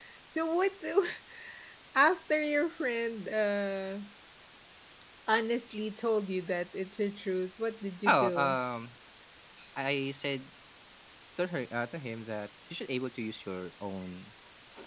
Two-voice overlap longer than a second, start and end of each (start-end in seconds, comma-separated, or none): none